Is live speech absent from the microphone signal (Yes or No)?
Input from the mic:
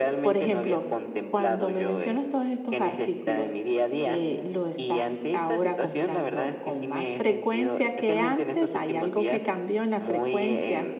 No